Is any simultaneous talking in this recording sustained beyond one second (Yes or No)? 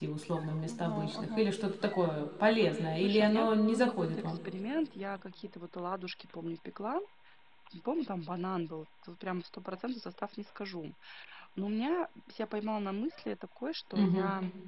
Yes